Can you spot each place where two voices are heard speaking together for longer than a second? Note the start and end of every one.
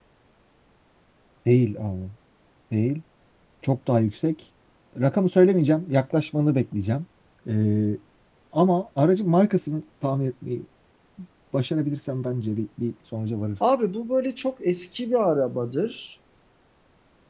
none

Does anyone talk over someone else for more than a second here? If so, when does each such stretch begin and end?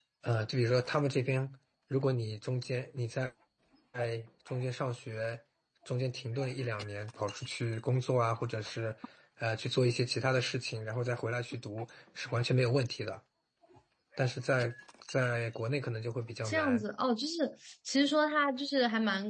none

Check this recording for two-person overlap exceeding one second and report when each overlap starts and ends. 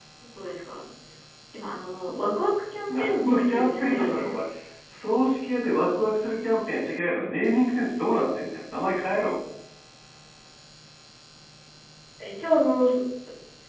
2.9-4.4

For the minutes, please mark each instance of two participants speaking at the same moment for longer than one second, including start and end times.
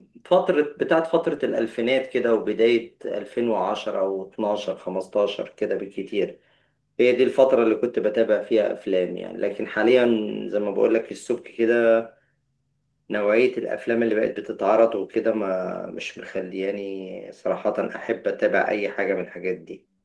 none

